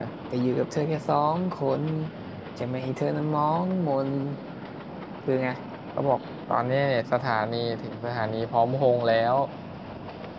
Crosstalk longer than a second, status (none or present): none